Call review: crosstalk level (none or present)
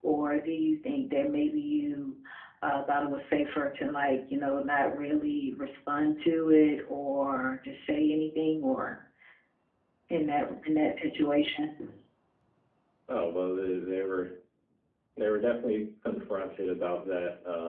none